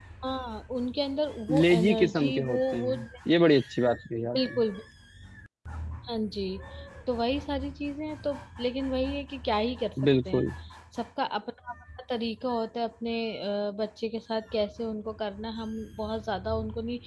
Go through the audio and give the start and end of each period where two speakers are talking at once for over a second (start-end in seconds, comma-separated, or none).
1.5-3.0